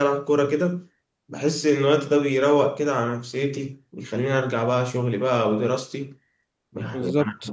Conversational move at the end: listening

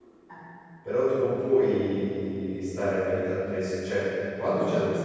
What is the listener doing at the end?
listening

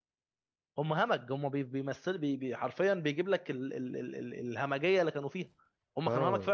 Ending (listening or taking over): taking over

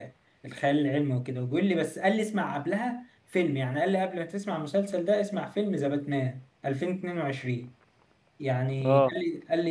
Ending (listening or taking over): listening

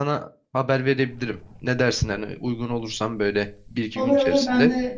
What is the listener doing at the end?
taking over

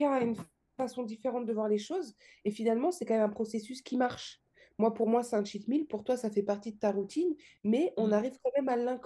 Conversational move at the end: listening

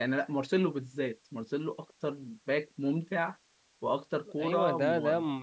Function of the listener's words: taking over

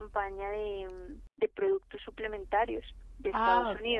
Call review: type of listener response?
taking over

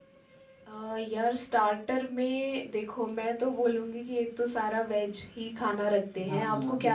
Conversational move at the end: taking over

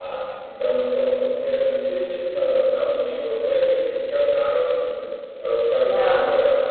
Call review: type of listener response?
listening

